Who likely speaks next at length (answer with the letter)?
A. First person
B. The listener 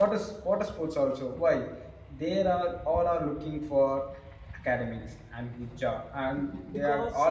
A